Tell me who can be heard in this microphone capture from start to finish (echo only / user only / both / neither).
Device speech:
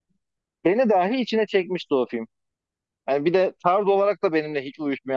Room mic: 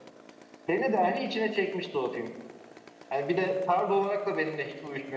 echo only